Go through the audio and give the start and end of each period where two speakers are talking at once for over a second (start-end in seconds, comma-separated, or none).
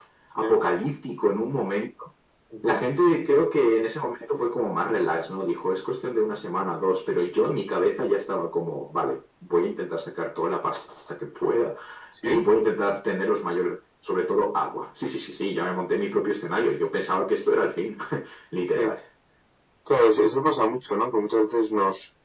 none